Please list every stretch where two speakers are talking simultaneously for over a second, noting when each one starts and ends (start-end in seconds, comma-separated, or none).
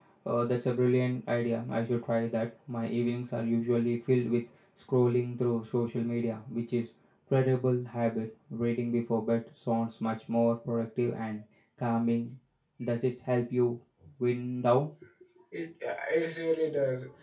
none